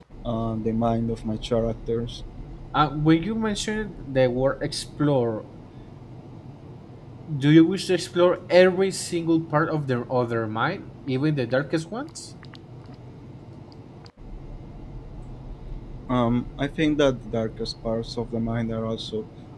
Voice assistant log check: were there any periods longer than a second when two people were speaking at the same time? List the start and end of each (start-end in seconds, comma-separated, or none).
none